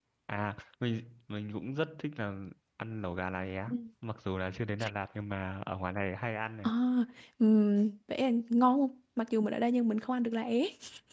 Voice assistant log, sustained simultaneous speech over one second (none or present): none